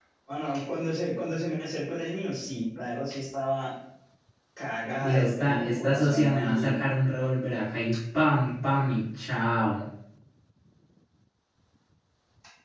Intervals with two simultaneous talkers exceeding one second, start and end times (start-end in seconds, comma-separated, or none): 5.0-6.8